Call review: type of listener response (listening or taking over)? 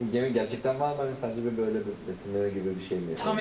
taking over